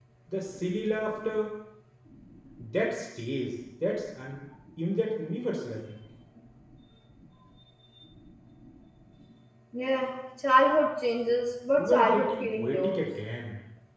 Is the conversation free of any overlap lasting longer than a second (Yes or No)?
No